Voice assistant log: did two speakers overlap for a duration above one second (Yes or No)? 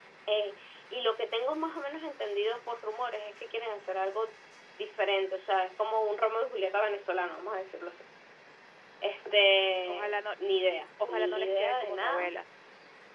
Yes